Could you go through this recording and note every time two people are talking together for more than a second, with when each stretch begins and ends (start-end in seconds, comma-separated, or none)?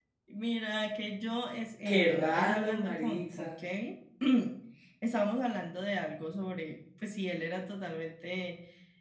1.9-3.5